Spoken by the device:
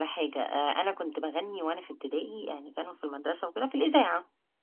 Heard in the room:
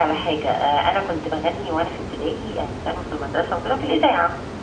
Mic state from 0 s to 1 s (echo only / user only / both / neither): echo only